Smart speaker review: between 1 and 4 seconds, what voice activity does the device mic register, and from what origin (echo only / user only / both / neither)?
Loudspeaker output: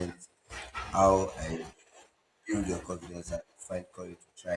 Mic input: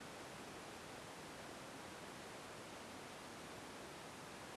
neither